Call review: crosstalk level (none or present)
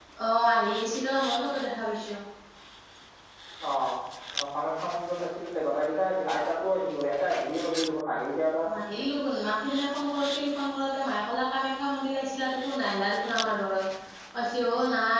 none